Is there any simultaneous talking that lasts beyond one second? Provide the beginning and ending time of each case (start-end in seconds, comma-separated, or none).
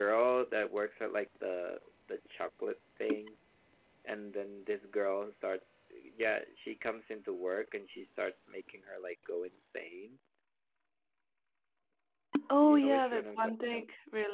12.6-13.8